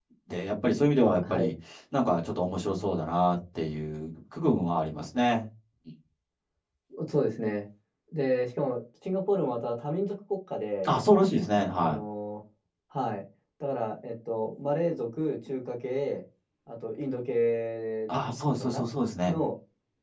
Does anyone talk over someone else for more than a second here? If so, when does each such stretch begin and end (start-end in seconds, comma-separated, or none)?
none